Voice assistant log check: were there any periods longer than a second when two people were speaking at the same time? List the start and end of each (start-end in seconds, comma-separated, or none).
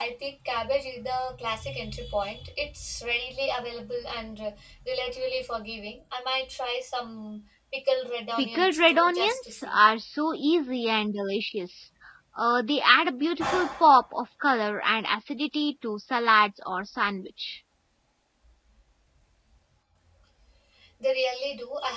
8.4-9.8